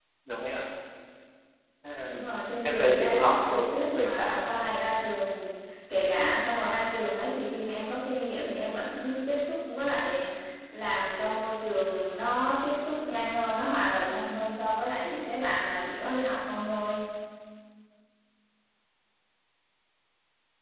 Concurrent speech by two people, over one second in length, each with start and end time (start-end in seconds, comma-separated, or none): 2.6-4.4